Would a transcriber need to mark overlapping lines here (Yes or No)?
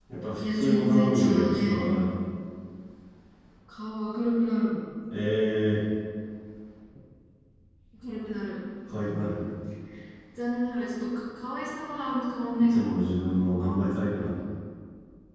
Yes